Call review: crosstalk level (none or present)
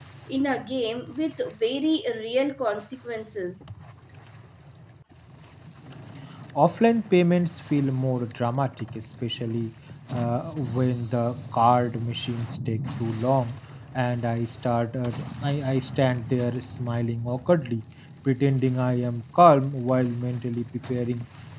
none